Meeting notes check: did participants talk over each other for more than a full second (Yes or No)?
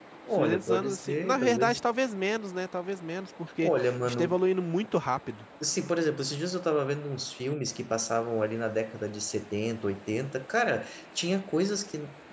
Yes